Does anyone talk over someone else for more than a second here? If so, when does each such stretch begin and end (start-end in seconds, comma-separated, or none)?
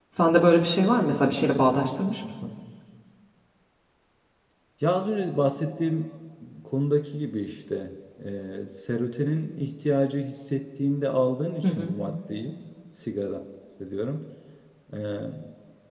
none